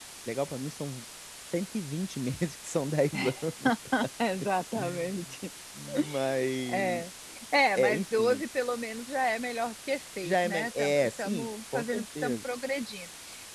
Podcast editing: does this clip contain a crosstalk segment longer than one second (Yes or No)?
Yes